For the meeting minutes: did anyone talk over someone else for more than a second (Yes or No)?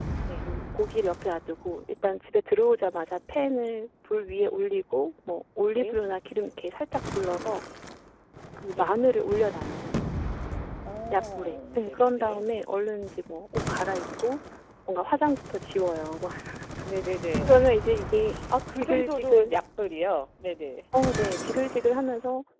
Yes